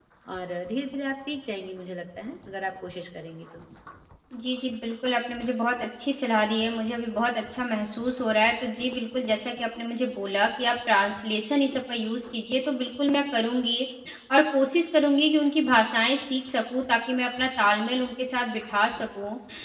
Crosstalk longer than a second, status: none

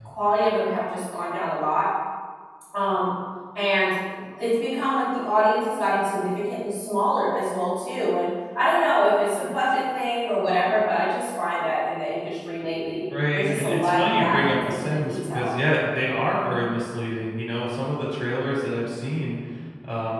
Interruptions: present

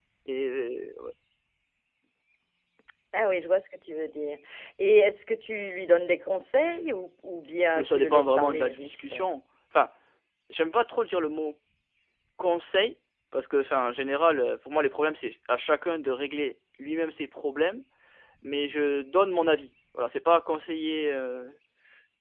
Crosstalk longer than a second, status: present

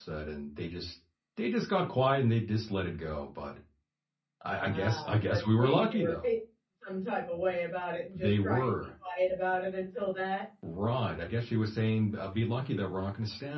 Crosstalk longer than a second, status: present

